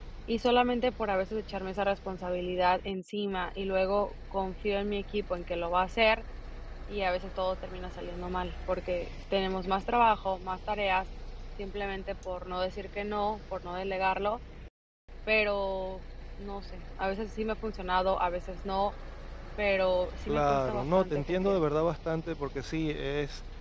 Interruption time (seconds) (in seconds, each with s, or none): 20.3 s